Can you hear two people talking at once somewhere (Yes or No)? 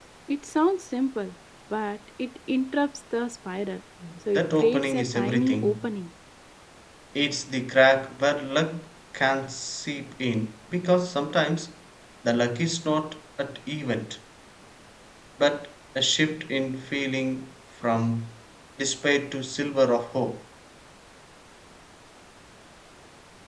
Yes